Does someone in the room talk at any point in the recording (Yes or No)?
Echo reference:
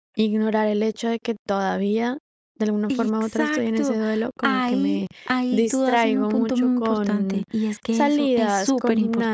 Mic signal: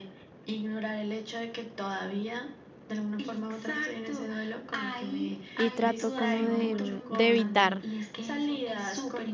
Yes